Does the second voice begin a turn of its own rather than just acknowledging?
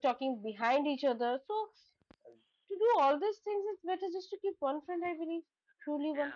Yes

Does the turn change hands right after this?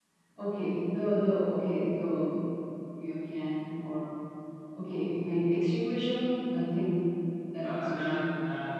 Yes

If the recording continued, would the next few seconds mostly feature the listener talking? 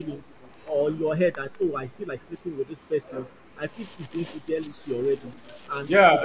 Yes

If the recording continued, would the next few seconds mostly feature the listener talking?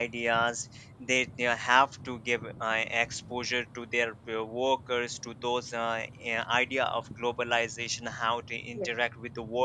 No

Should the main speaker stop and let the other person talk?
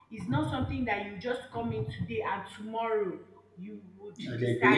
Yes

